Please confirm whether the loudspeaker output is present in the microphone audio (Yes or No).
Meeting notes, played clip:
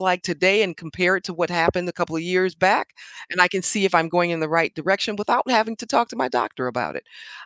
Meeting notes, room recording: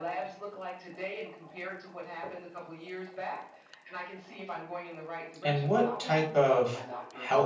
Yes